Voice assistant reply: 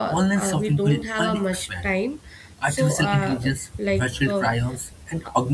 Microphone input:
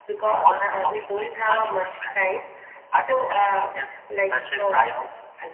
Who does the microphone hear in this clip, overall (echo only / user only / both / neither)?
echo only